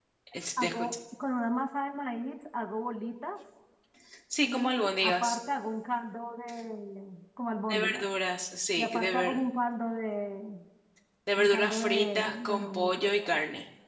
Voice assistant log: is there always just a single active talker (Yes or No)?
No